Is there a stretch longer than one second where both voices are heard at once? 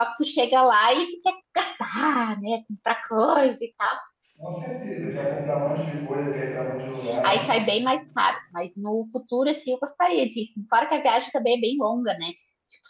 No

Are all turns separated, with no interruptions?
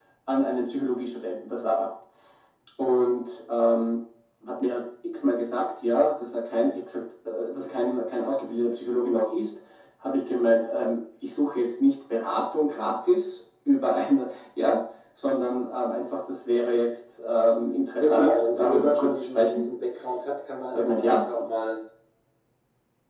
No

